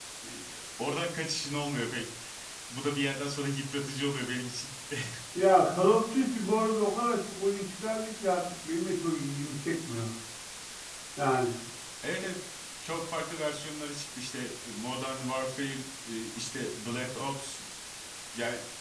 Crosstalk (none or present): none